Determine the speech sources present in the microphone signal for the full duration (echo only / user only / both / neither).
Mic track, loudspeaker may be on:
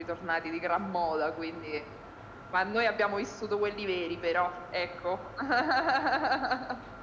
echo only